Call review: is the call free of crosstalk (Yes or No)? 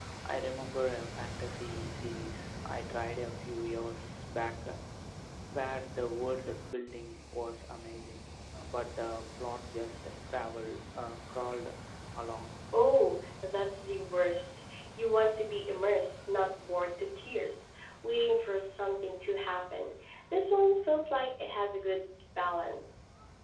Yes